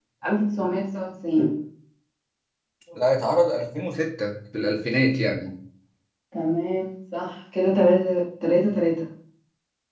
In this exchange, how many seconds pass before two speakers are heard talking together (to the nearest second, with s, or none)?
none